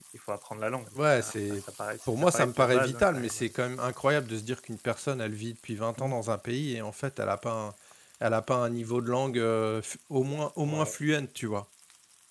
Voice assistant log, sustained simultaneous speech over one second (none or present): present